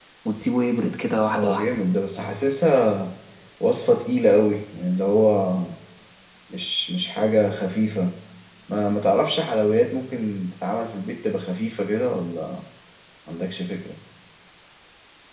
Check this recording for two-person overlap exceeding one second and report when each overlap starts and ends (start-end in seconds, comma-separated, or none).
none